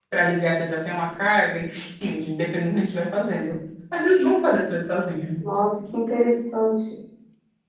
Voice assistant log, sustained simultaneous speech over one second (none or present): none